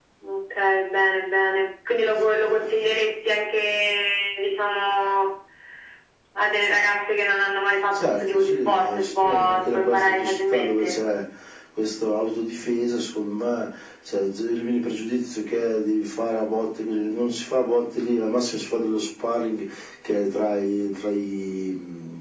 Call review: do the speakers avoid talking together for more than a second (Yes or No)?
No